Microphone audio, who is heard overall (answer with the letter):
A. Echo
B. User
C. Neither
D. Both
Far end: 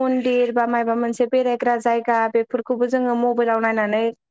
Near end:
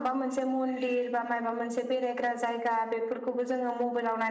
A